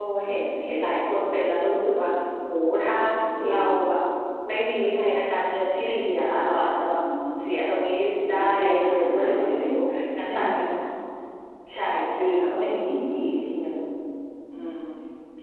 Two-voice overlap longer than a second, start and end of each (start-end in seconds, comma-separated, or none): 8.3-9.7